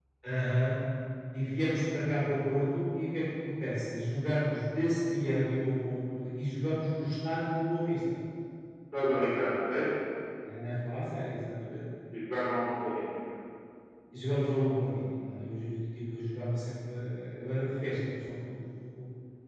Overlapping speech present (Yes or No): No